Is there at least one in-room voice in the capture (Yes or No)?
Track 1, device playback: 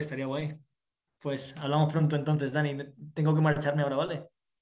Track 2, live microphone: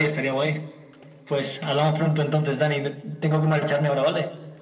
No